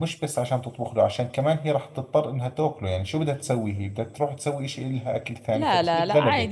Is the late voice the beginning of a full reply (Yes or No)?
Yes